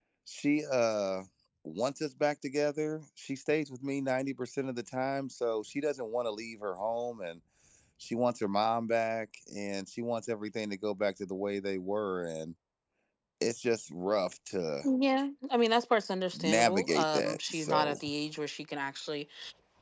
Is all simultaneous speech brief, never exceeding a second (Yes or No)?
No